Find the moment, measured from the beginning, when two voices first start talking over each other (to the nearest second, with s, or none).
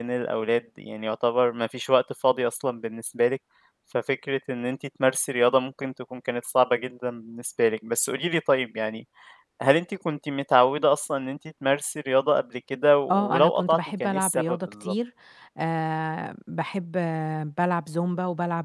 13 s